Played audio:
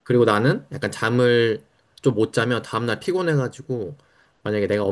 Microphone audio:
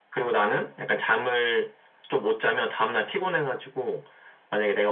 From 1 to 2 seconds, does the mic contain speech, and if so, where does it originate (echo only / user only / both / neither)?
echo only